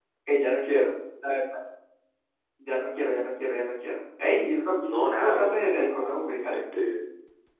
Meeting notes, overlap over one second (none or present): present